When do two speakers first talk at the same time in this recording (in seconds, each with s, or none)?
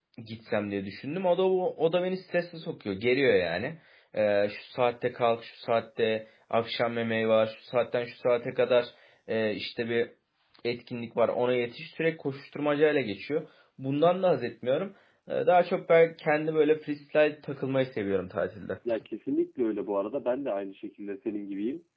none